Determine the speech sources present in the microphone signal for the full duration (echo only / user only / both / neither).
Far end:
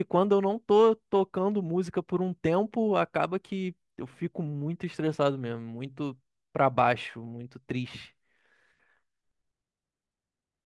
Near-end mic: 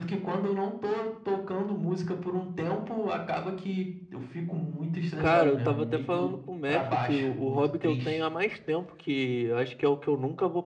both